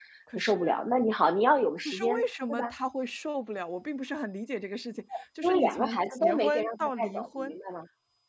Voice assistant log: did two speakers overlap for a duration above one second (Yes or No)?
Yes